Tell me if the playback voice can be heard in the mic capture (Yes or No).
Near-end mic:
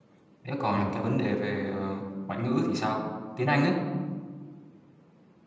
No